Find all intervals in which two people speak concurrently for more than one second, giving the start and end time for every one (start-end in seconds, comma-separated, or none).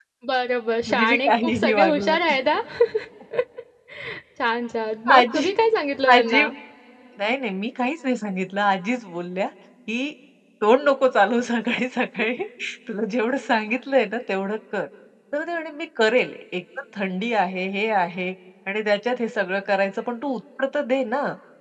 0.9-2.2